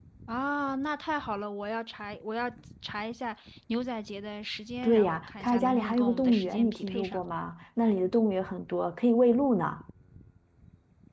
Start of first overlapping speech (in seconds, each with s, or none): 4.8 s